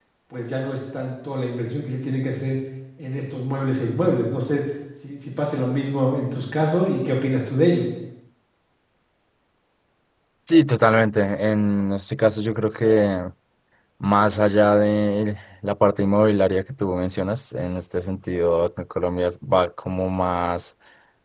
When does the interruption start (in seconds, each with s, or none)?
none